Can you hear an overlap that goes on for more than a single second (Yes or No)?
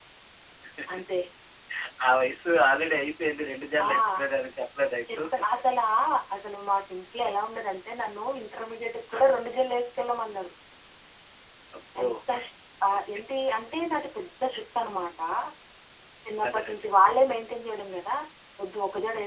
No